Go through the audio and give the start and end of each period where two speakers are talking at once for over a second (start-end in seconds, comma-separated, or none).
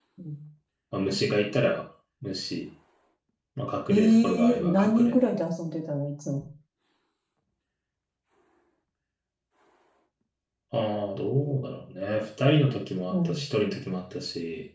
3.9-5.1